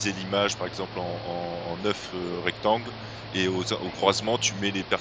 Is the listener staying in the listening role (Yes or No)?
Yes